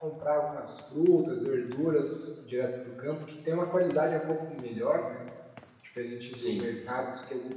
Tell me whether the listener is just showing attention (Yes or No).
Yes